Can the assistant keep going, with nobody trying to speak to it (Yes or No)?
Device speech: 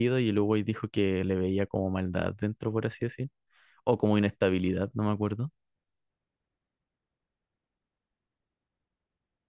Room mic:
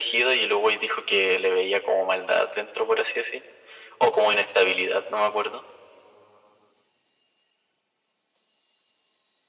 Yes